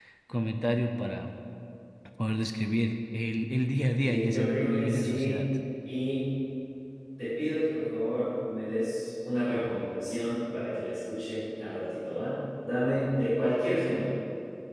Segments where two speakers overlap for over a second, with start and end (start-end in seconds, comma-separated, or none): 4.0-5.4